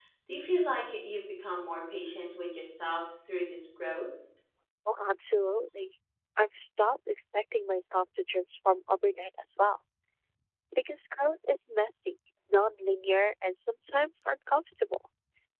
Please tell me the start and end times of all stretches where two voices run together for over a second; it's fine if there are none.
none

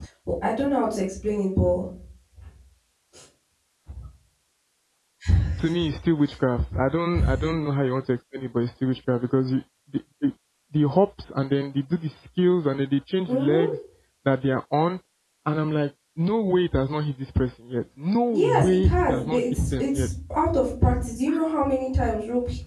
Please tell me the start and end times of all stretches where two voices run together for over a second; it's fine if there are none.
18.3-20.1

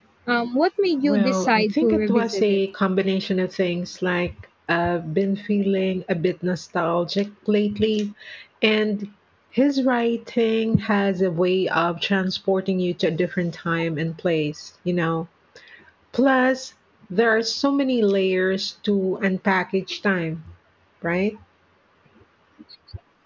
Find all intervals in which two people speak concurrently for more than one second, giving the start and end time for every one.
1.0-2.6

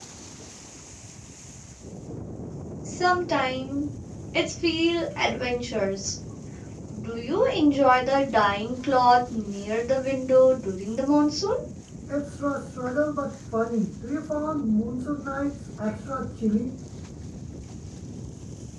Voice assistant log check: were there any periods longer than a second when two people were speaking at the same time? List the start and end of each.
none

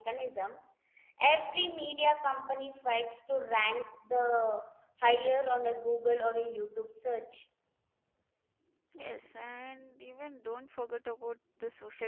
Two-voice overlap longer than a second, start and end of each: none

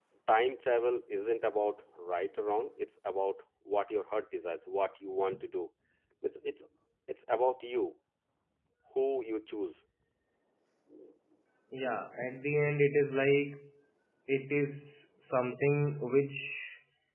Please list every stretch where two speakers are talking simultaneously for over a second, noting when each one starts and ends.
none

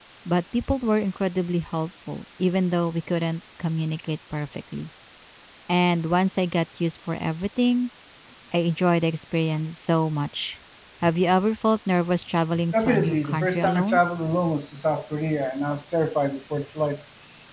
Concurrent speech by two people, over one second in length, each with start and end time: 12.7-14.0

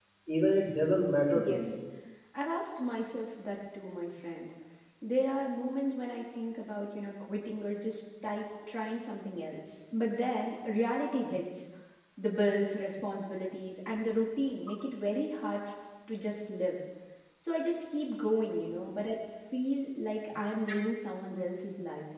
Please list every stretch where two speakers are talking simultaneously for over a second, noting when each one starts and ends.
none

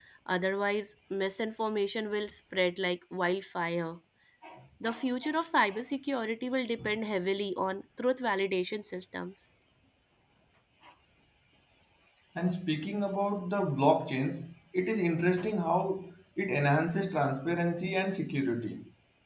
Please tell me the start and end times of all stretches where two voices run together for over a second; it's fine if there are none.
none

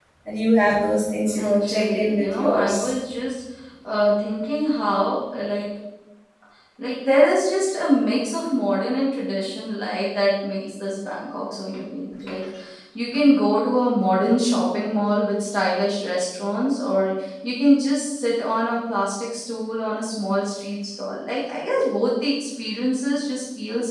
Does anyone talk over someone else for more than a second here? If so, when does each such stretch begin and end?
1.2-2.9

